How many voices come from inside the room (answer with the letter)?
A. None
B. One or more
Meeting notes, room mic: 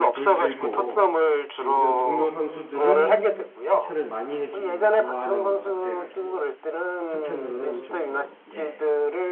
B